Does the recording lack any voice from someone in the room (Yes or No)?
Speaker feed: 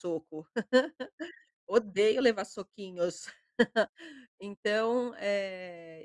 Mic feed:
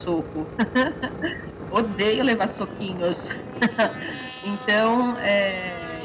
Yes